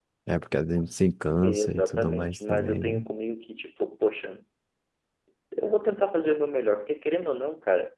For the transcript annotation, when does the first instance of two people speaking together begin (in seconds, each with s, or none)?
1.4 s